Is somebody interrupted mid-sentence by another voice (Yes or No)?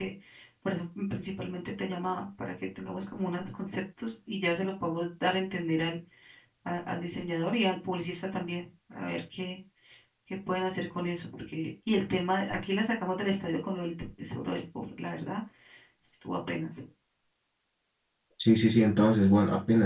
No